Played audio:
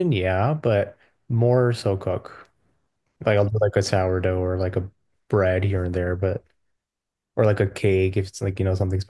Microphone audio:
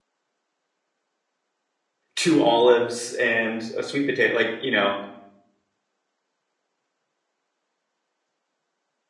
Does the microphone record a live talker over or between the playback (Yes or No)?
Yes